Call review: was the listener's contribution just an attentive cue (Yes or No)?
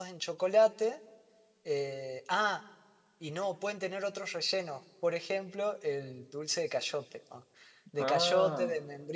Yes